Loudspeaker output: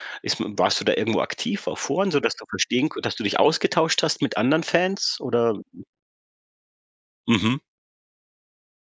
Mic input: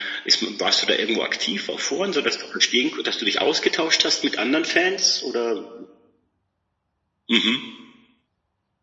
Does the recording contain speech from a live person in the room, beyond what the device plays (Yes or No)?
No